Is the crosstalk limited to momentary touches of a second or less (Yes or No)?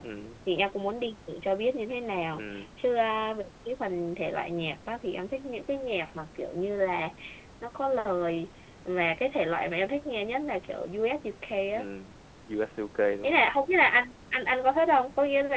Yes